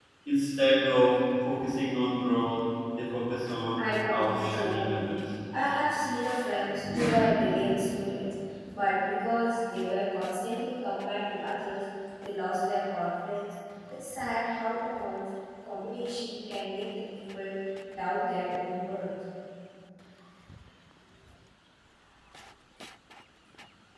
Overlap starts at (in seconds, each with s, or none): 3.8 s